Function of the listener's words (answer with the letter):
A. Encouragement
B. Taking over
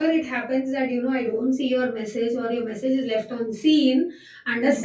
A